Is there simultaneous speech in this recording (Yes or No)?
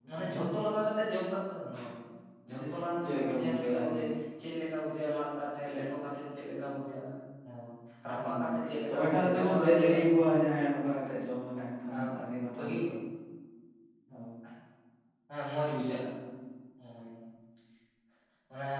Yes